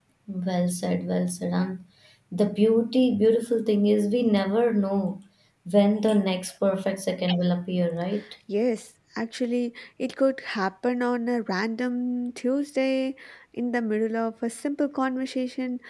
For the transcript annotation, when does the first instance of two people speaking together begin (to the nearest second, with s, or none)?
none